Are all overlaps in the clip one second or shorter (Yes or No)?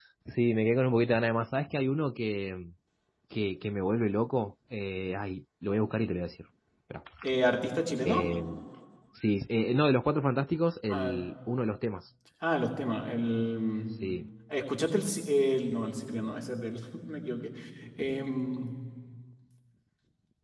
Yes